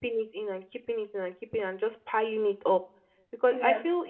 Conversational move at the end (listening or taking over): listening